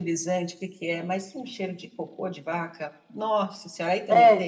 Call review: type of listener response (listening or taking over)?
taking over